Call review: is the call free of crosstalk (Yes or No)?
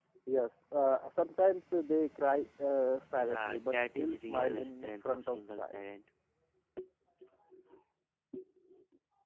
No